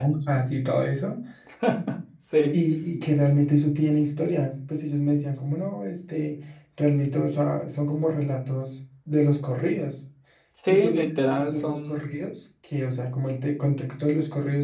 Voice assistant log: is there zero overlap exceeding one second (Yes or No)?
No